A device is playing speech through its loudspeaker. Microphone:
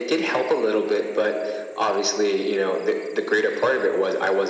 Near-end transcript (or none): none